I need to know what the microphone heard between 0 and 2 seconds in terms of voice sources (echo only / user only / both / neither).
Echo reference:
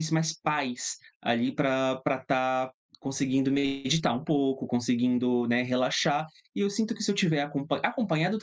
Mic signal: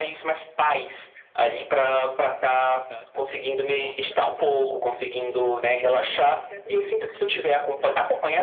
echo only